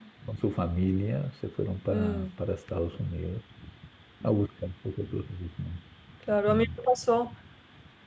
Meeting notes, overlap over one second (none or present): none